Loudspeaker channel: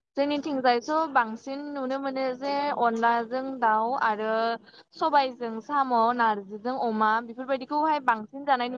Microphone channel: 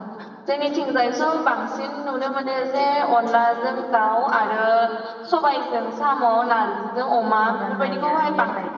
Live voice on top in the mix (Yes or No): No